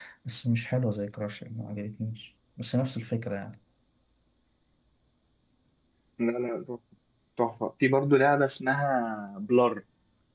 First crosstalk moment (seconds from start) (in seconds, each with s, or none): none